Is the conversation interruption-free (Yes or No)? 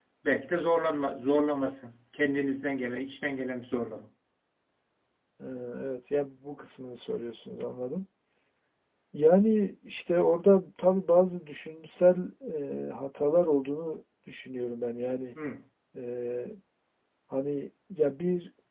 Yes